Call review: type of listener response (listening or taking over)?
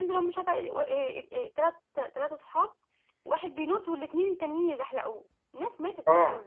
taking over